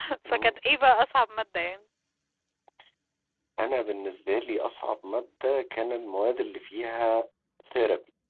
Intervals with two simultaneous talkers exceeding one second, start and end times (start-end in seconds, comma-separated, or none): none